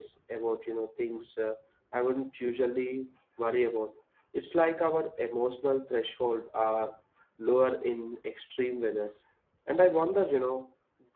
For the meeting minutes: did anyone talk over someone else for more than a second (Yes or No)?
No